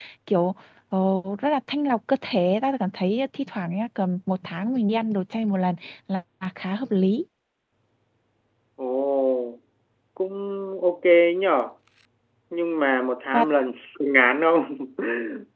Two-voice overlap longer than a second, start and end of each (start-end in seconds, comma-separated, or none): none